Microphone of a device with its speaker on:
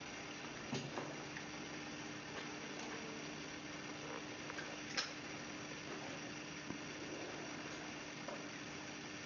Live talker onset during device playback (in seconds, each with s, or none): none